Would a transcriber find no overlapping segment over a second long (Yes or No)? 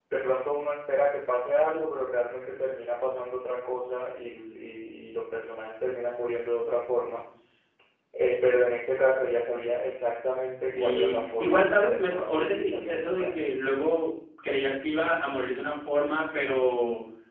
No